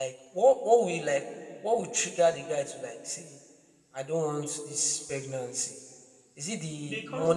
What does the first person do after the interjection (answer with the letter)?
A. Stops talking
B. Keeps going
B